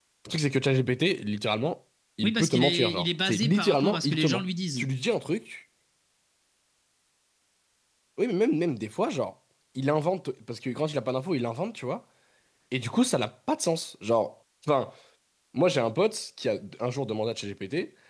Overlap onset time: 2 s

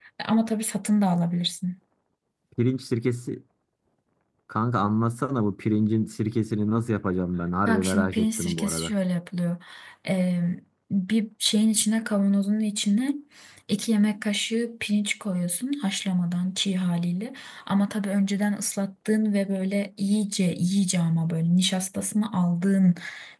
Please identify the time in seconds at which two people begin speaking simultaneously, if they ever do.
8 s

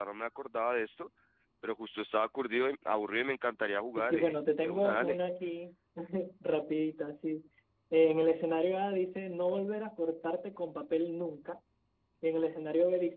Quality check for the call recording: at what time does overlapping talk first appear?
4 s

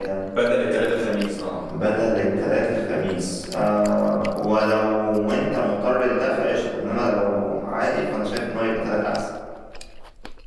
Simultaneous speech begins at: none

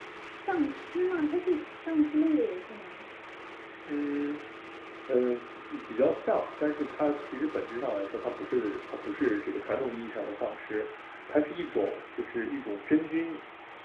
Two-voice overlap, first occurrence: none

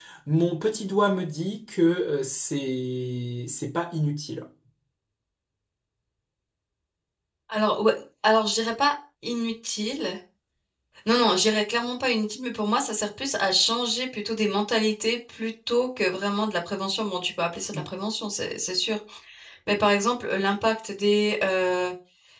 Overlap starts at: none

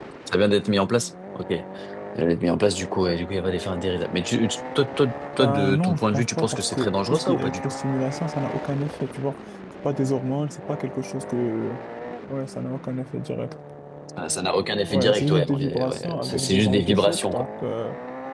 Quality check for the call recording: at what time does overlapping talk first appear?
5 s

